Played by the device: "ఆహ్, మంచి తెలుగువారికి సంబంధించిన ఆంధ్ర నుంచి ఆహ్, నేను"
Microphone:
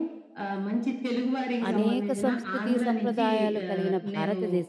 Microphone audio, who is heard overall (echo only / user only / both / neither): both